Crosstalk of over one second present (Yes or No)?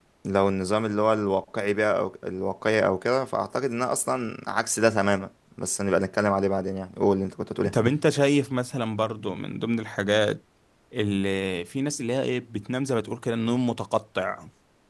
No